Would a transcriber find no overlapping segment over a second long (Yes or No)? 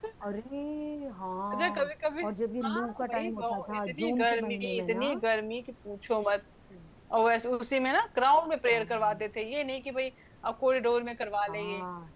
No